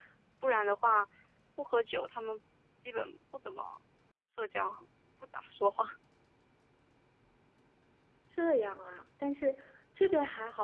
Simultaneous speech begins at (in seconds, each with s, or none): none